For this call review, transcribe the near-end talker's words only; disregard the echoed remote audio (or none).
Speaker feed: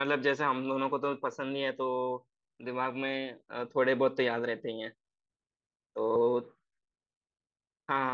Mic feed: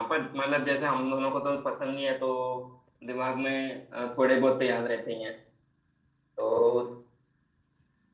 none